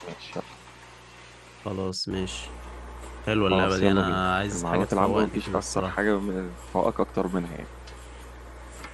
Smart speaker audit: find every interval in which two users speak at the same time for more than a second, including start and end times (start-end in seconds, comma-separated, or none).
3.5-6.0